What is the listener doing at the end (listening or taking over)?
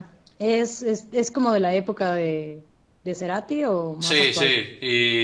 taking over